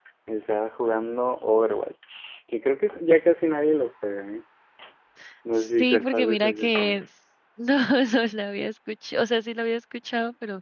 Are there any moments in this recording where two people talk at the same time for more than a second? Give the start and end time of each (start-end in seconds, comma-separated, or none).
5.6-7.0